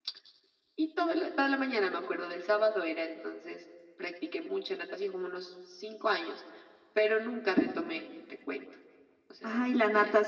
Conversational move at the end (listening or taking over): taking over